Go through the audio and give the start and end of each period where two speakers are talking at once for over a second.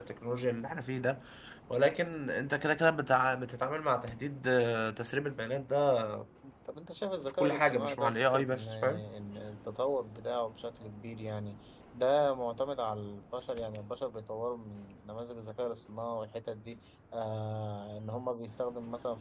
7.2-9.0

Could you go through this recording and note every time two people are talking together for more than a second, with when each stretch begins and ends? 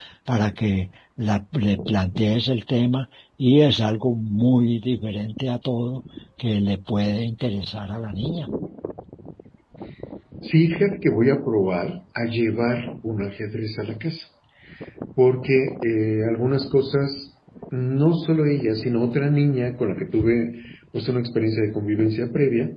none

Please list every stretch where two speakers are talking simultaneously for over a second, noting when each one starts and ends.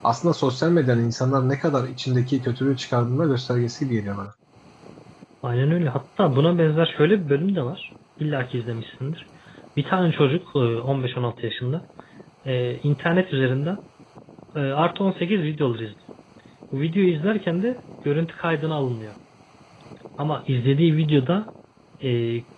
none

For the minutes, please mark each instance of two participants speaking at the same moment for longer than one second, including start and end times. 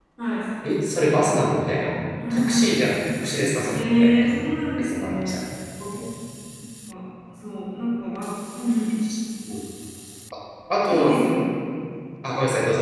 3.7-5.4

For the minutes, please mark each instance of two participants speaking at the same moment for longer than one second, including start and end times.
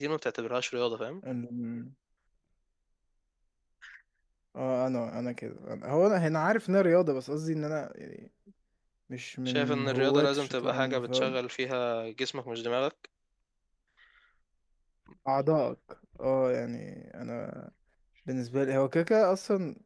9.4-11.4

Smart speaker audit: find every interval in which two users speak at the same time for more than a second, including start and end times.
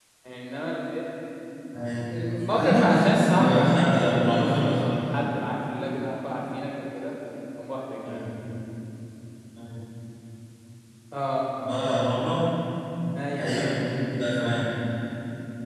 2.5-4.9

